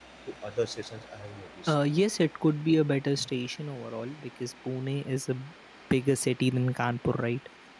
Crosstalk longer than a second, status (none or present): none